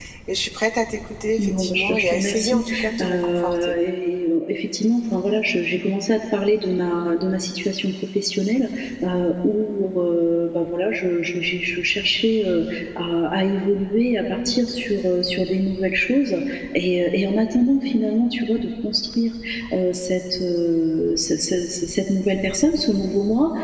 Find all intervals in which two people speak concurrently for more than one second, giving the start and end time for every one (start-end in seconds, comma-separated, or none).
1.4-3.7